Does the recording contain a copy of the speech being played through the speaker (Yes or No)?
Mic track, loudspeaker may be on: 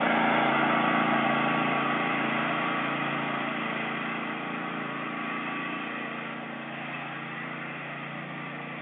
No